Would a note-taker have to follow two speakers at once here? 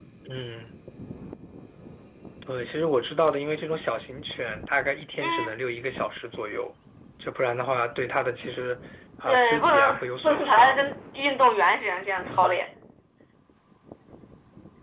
Yes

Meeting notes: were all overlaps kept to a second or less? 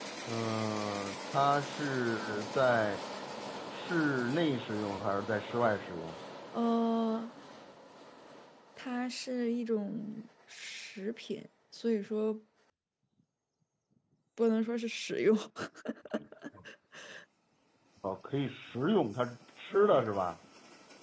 Yes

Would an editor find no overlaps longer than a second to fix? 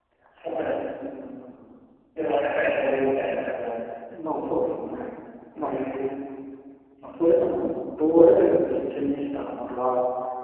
Yes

